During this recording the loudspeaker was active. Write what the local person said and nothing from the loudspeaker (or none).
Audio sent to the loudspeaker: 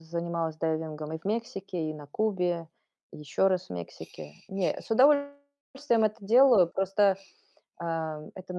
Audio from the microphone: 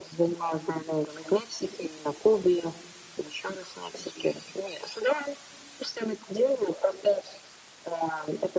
none